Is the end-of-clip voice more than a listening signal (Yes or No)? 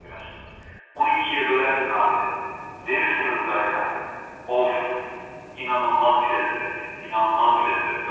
No